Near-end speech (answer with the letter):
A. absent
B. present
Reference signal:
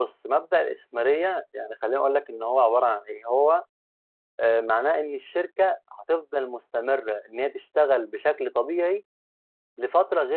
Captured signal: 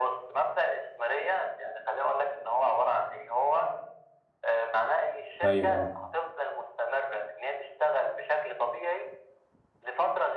B